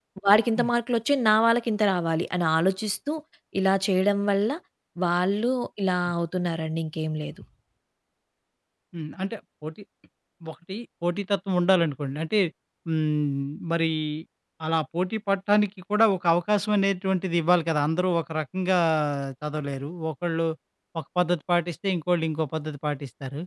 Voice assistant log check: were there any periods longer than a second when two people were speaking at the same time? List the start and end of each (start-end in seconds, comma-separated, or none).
none